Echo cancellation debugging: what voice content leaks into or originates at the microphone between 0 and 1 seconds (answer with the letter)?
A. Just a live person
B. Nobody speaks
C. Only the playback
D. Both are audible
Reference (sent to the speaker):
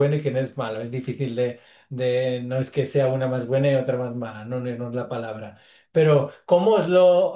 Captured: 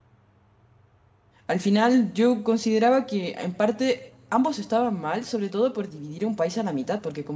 B